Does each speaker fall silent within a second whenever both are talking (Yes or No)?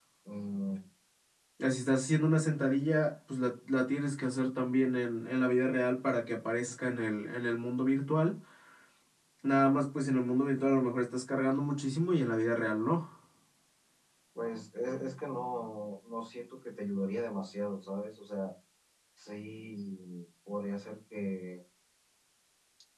Yes